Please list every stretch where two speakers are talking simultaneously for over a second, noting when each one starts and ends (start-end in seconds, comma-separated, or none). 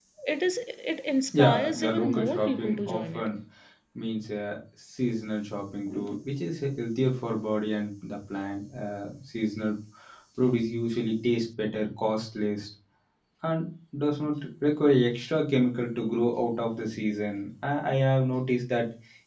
1.3-3.4